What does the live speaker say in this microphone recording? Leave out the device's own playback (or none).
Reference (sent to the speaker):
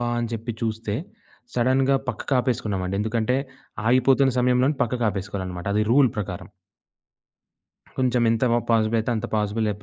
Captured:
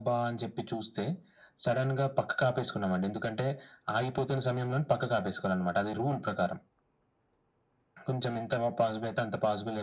none